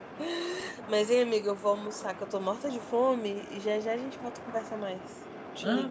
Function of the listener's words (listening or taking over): taking over